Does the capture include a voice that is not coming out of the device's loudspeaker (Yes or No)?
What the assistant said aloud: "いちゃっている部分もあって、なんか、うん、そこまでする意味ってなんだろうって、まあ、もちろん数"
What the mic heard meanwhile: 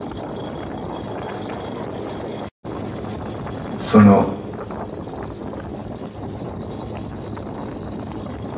Yes